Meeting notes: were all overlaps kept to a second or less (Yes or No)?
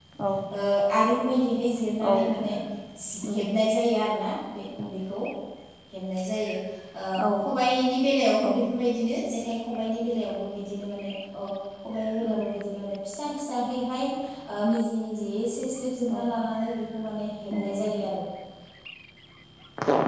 Yes